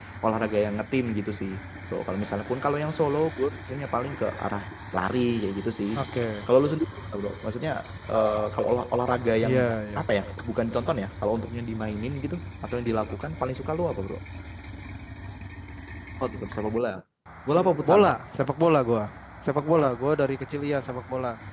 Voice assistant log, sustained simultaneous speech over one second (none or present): none